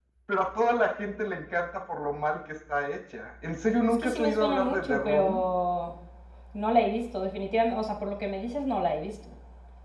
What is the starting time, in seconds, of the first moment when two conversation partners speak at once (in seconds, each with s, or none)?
3.6 s